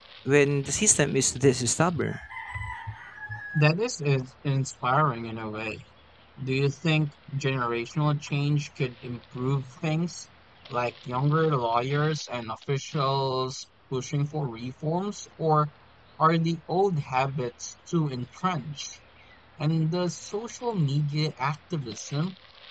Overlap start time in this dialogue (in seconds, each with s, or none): none